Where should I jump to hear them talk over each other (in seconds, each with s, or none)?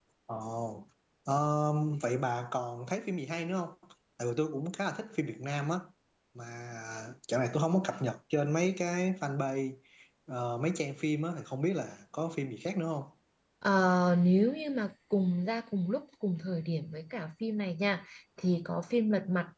none